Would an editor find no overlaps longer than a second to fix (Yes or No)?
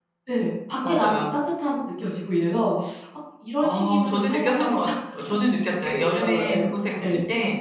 No